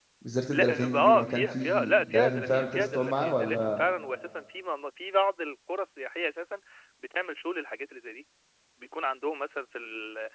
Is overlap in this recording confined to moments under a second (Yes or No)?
No